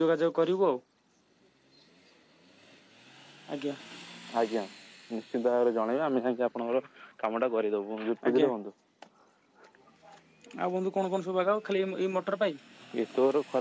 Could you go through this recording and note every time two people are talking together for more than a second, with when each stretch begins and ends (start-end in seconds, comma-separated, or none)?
none